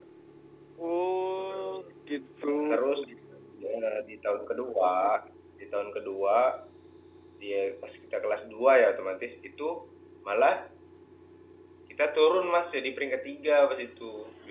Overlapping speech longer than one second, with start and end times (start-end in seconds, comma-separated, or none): none